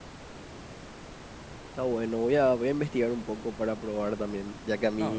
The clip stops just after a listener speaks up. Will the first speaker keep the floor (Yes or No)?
No